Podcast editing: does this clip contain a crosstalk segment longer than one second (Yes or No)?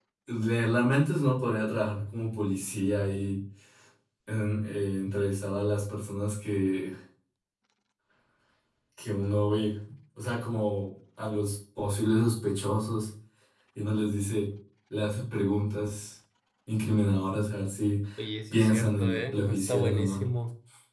Yes